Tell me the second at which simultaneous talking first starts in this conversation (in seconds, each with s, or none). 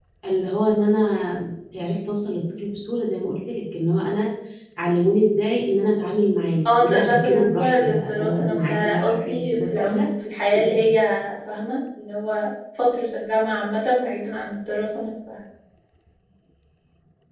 6.8 s